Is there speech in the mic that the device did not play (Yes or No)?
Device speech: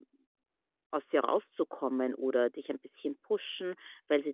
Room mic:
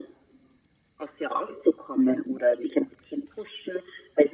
No